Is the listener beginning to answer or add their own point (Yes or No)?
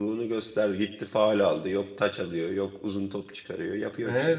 Yes